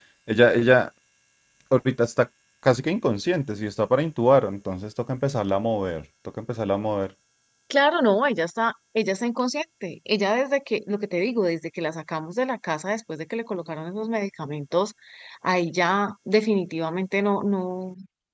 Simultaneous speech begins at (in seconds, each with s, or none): none